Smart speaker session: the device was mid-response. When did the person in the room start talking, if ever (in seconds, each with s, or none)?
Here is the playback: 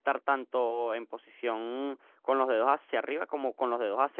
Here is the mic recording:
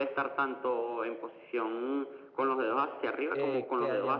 3.3 s